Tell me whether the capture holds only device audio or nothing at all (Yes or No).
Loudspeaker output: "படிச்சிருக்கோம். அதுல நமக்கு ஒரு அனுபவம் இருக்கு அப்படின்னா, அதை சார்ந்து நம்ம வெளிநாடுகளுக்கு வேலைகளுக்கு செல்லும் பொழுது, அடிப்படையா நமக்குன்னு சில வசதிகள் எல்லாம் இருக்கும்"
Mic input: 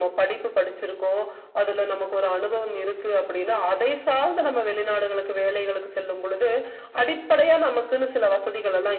Yes